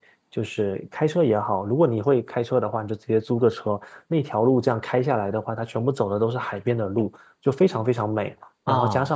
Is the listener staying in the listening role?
Yes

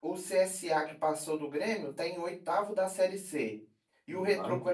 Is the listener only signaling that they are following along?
Yes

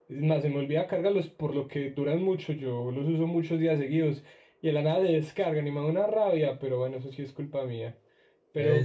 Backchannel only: No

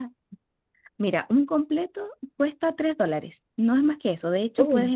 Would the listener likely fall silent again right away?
Yes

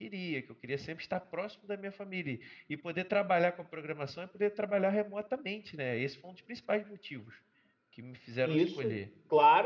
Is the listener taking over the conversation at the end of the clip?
Yes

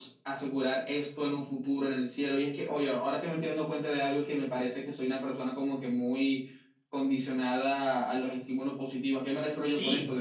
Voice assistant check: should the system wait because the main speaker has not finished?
No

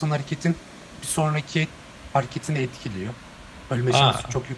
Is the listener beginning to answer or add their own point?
No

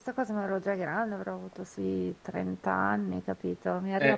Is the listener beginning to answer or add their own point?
No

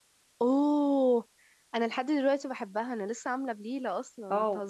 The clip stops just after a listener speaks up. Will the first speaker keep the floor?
No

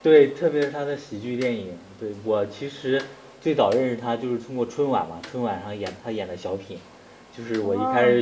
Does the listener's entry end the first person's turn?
No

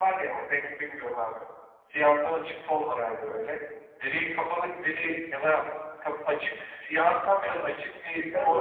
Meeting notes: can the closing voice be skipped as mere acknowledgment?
No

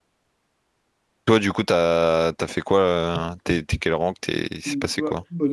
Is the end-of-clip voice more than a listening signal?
Yes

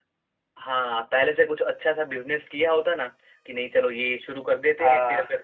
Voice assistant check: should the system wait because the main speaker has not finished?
Yes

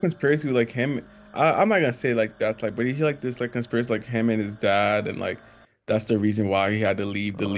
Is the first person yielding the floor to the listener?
Yes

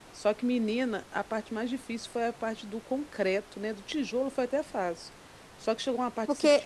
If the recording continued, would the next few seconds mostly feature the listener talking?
No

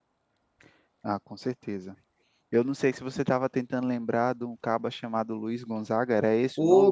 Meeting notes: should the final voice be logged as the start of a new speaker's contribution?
Yes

